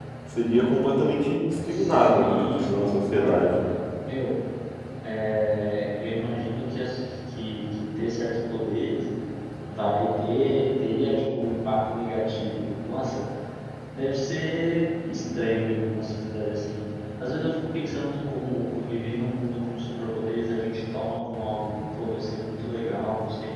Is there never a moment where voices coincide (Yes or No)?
No